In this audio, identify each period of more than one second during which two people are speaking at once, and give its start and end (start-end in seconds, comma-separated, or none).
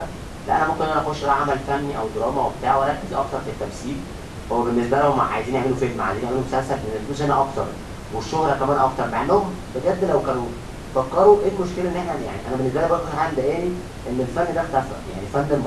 none